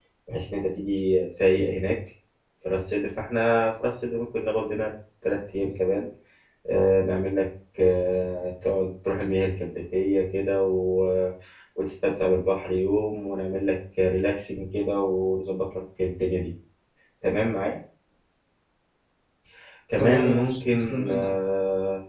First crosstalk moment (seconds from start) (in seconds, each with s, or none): 20.0 s